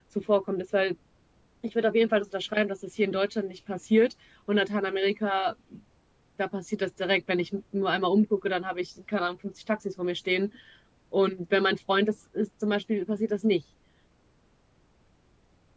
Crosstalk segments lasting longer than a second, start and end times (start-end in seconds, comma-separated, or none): none